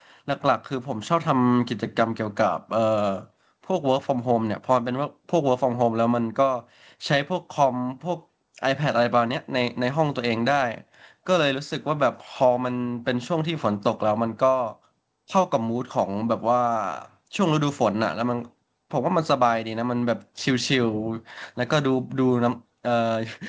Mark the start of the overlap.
none

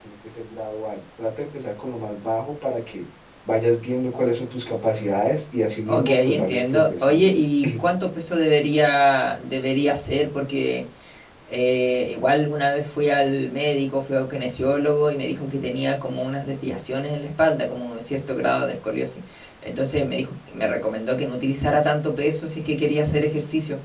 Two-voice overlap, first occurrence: 5.9 s

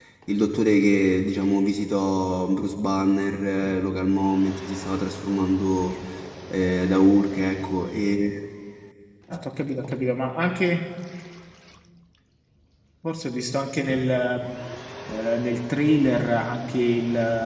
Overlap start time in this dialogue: none

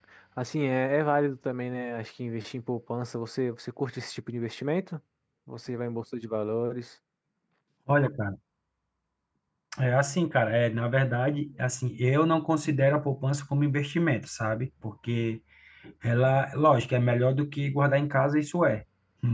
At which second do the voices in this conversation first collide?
none

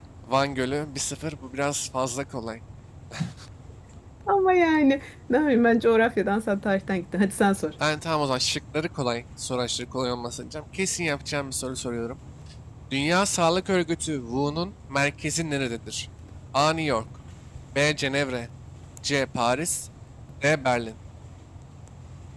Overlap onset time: none

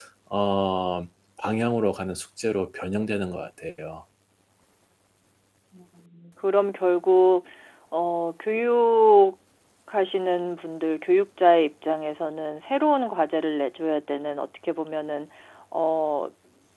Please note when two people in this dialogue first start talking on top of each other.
none

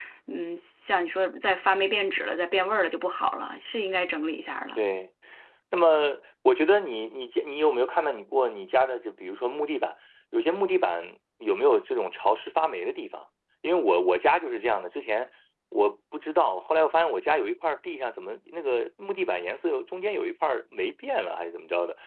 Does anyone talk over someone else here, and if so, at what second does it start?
none

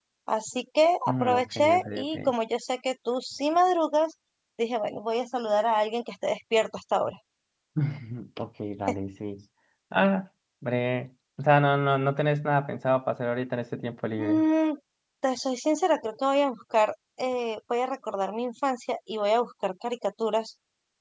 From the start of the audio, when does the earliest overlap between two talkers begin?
1.1 s

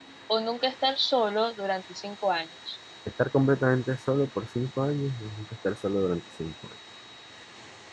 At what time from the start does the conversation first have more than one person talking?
none

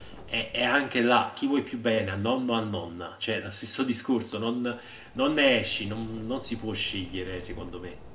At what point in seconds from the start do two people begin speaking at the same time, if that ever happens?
none

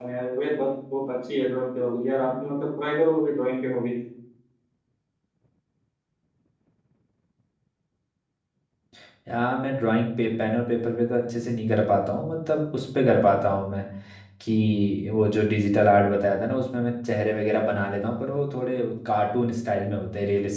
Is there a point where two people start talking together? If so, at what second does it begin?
none

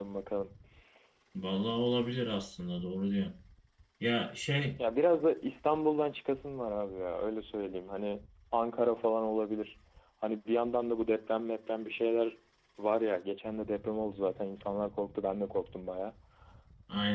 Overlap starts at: none

